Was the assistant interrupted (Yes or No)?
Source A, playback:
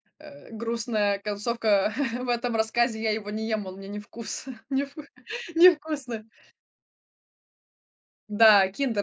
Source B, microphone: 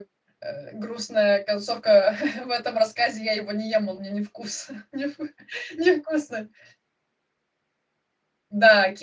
No